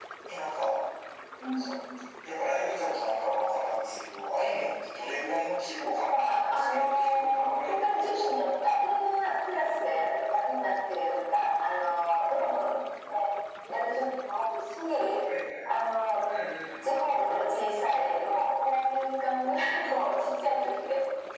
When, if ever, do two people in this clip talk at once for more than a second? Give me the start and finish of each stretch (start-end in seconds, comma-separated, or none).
6.1-8.4